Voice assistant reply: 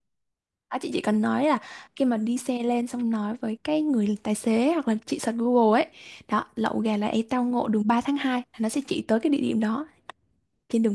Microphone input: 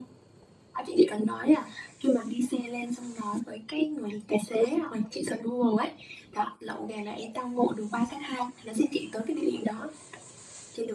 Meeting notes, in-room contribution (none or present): none